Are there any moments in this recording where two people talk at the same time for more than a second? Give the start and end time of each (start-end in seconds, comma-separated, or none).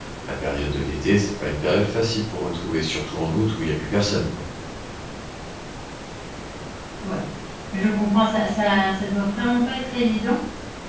none